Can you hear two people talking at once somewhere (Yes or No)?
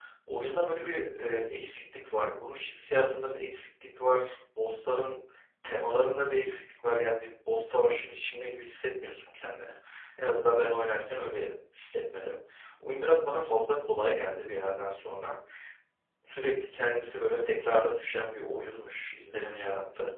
No